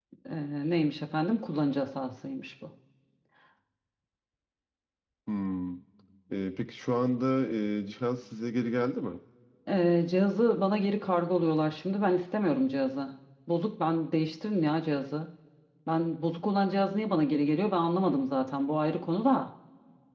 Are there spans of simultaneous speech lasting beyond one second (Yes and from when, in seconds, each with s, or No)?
No